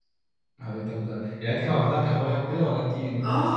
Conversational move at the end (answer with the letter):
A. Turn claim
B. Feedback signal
A